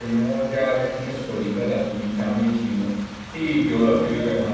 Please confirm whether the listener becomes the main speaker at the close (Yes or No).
No